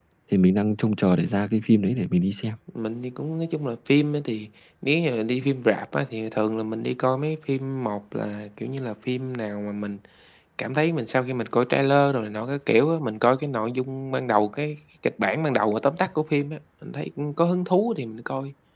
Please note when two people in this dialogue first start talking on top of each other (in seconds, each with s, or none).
none